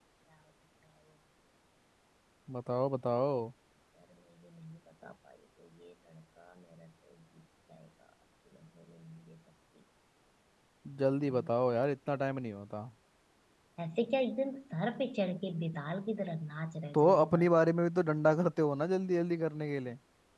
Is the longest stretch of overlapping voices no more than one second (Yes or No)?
Yes